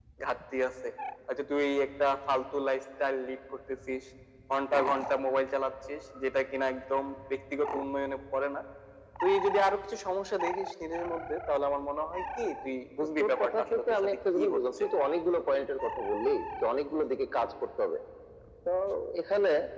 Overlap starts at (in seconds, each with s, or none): 13.2 s